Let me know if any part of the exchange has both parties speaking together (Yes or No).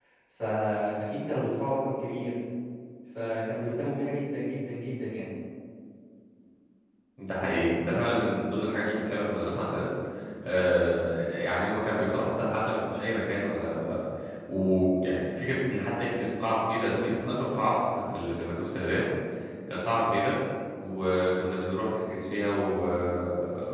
No